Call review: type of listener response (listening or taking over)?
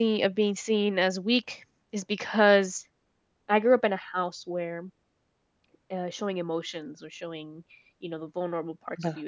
listening